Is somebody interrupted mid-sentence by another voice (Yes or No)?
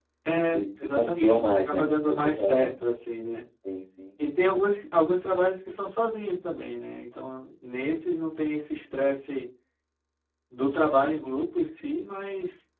Yes